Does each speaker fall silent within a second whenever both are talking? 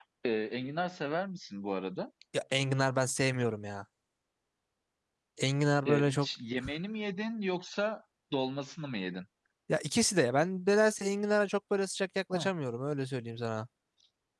Yes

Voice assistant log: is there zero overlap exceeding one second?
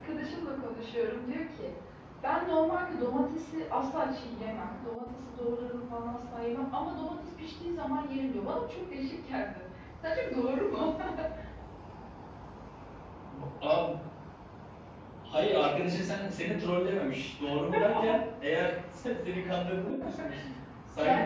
Yes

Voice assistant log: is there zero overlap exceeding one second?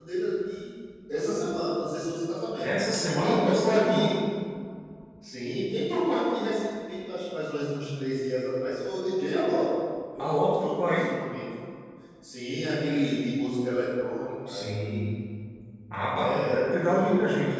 No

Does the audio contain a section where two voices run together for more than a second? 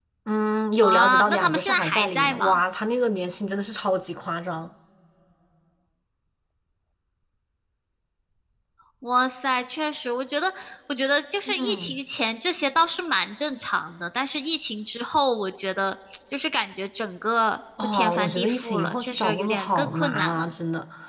Yes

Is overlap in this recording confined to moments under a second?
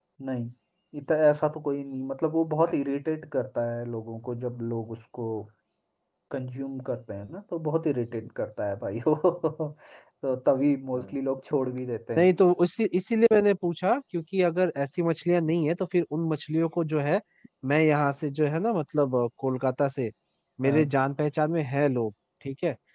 Yes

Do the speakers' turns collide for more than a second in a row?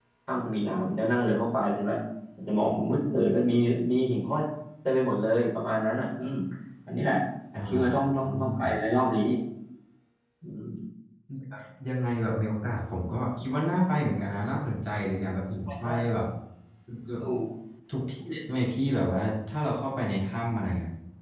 No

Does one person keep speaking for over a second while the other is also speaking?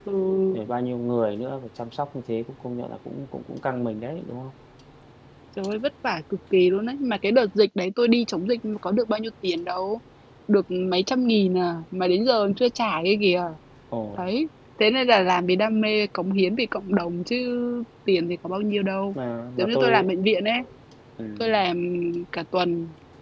No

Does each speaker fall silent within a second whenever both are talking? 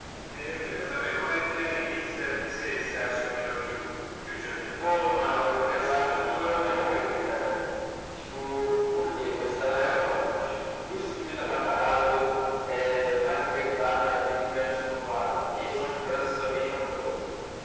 No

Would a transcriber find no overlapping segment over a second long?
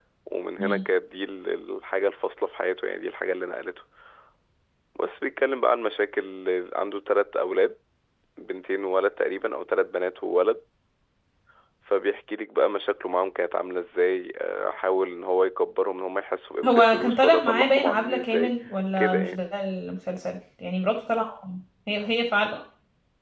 No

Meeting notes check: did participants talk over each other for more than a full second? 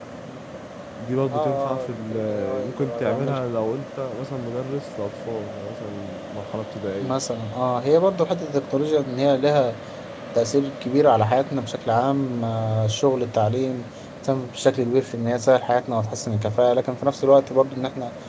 Yes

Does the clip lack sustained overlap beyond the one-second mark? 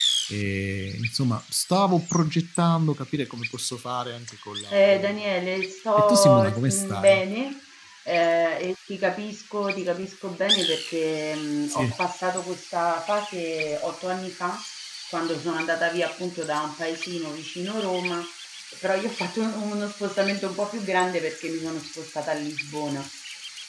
No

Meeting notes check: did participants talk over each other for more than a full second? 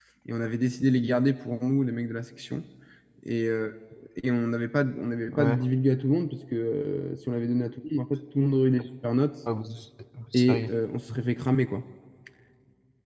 No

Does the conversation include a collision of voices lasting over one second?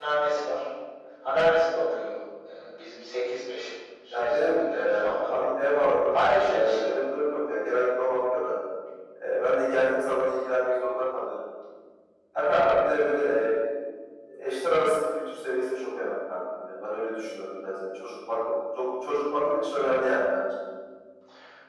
Yes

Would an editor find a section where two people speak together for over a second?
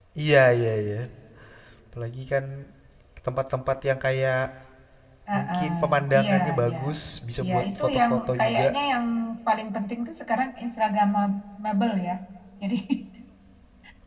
Yes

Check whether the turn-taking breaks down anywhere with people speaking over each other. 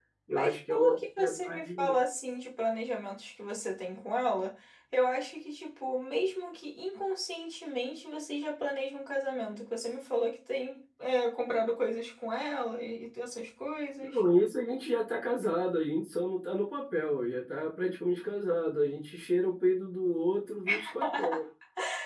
Yes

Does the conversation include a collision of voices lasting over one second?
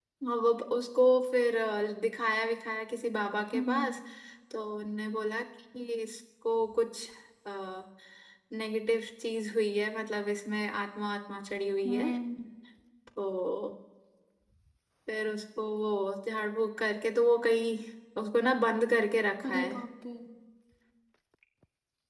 No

